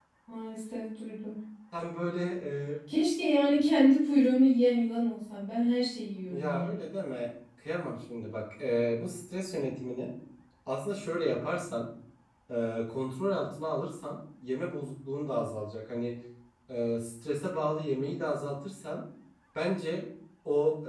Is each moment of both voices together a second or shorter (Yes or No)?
Yes